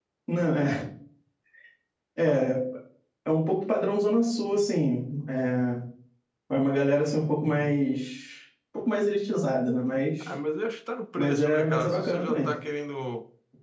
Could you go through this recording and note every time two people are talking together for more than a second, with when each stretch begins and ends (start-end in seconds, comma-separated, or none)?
11.2-12.5